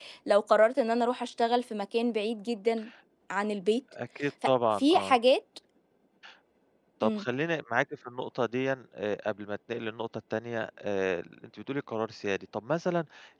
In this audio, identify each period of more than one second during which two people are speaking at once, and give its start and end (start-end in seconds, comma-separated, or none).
none